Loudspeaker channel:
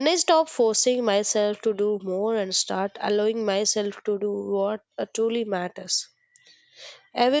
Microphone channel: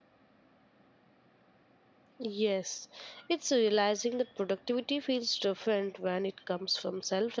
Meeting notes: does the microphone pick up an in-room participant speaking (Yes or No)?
Yes